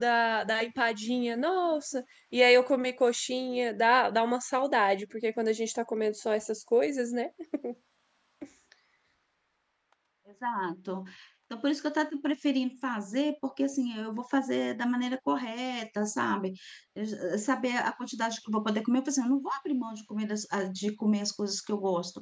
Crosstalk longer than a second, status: none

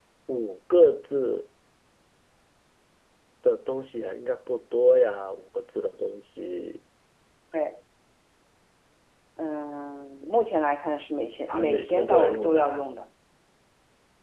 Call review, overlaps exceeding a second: present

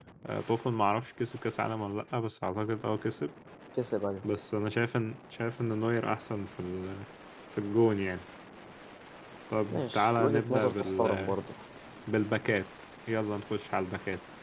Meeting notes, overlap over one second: present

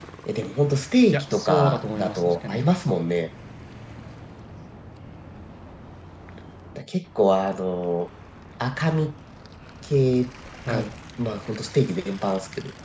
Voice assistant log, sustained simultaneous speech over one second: present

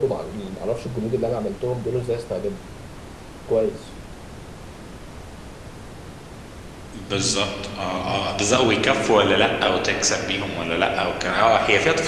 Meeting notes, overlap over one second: none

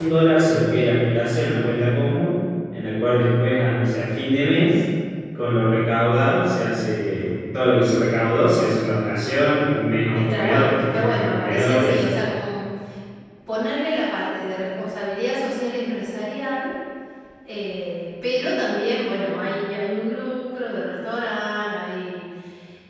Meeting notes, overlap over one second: present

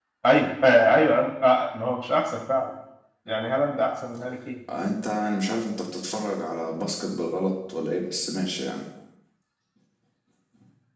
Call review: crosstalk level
none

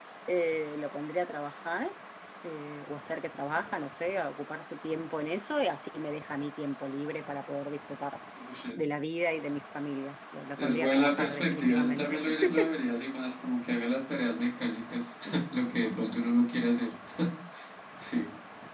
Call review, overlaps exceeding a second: present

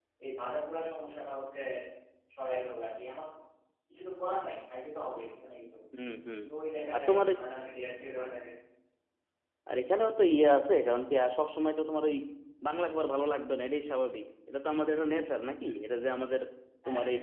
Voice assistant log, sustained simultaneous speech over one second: none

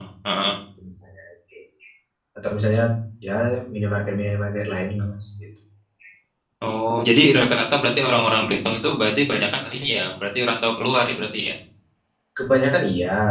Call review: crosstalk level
none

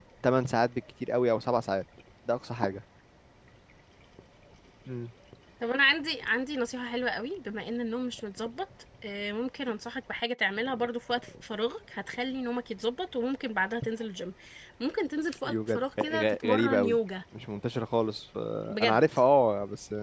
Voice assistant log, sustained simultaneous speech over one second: present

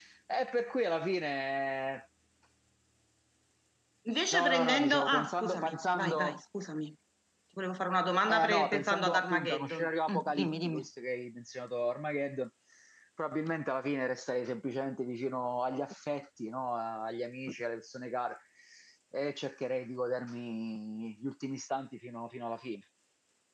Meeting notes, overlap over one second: present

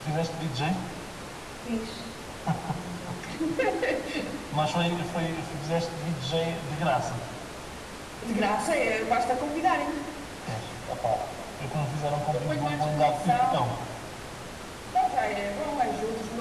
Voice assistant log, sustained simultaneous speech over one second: present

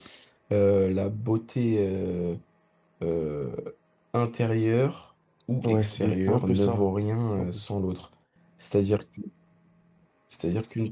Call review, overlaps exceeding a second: present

